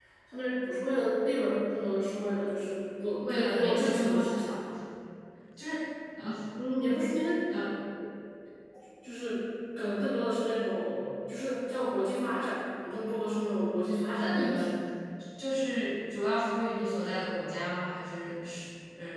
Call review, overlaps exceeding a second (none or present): present